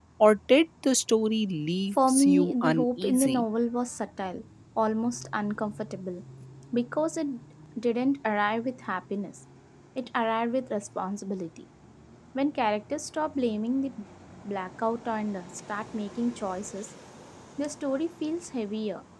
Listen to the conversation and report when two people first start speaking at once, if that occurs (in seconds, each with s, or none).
2.0 s